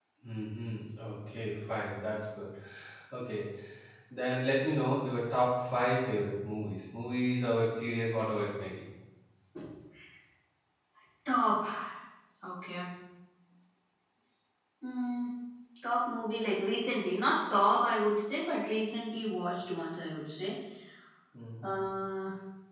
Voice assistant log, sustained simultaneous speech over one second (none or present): none